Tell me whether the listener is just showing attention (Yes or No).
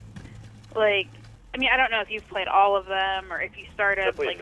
No